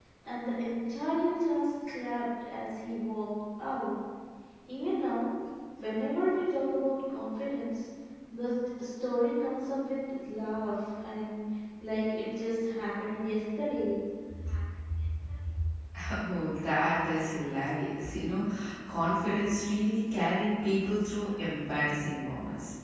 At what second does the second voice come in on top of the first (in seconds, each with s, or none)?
none